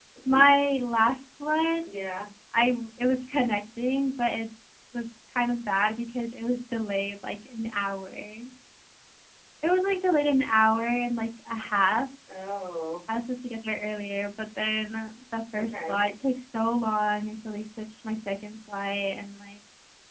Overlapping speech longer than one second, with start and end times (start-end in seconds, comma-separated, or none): none